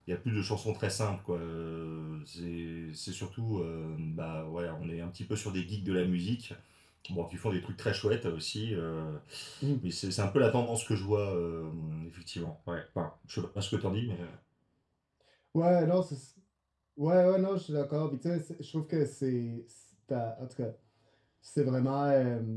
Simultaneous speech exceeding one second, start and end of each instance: none

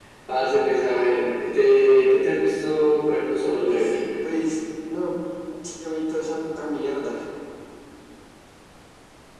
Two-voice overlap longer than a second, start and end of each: none

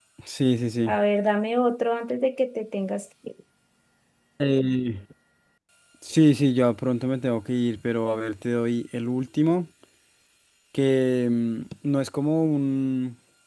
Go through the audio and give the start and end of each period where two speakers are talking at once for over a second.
none

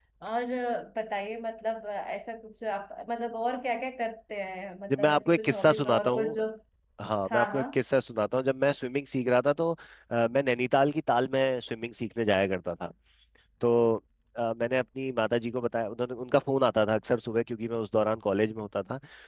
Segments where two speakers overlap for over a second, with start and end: 4.9-6.4

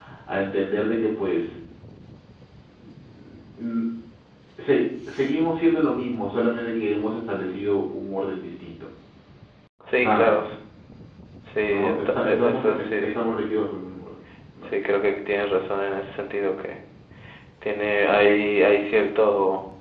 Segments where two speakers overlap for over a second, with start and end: 11.6-12.9

